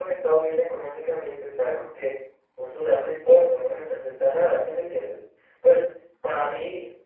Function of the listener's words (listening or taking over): listening